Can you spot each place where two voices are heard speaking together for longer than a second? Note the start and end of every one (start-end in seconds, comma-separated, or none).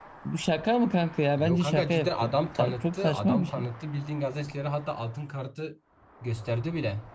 1.4-3.7